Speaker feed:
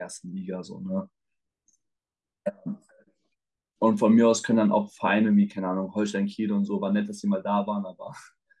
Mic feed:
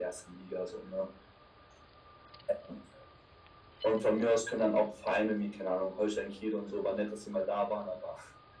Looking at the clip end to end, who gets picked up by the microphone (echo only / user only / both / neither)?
echo only